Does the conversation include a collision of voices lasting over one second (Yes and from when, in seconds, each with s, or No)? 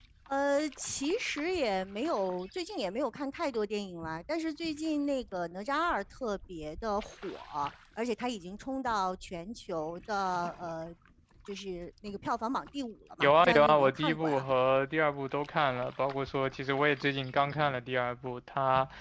Yes, from 13.2 s